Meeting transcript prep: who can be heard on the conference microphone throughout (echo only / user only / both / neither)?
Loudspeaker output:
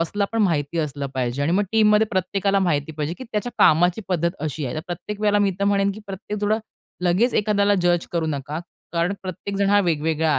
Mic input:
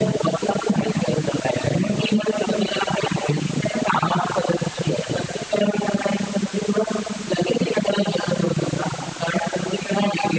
echo only